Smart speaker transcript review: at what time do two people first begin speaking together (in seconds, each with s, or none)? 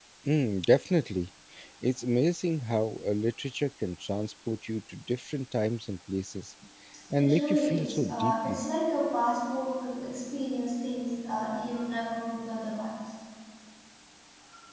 7.2 s